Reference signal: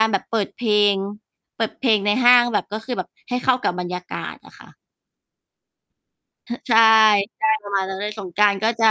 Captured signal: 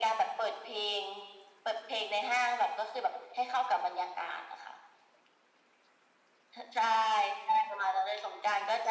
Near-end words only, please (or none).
none